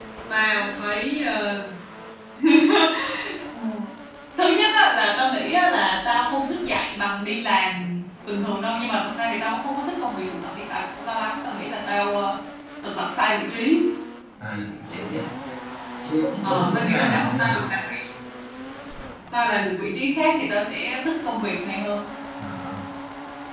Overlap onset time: 16 s

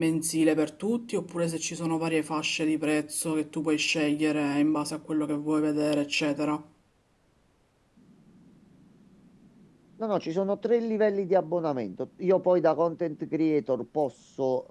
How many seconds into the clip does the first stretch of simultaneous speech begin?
none

